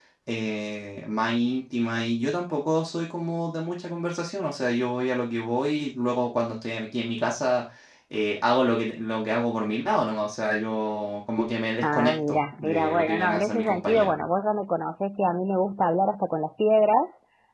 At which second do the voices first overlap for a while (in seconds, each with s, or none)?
11.8 s